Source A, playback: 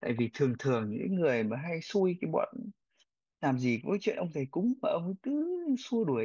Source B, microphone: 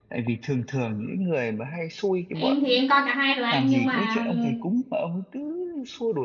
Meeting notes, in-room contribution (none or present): present